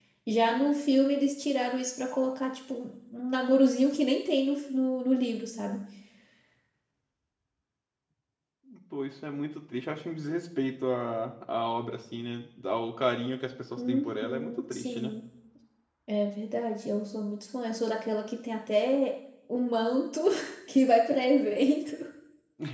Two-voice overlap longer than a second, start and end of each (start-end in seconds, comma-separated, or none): 13.9-15.1